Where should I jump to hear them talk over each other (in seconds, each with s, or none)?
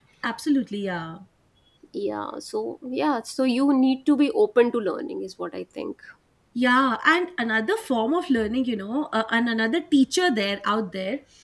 none